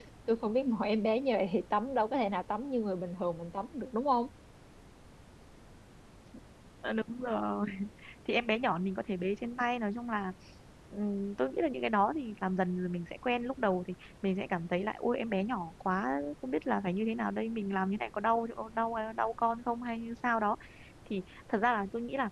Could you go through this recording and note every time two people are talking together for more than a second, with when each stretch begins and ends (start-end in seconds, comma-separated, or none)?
none